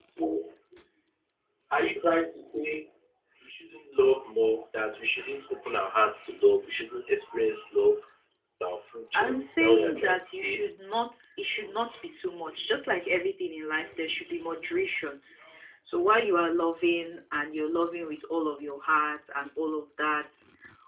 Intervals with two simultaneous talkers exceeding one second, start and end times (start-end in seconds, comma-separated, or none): 9.1-10.6